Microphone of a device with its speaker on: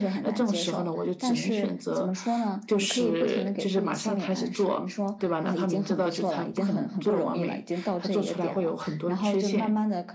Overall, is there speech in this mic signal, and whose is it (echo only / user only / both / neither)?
echo only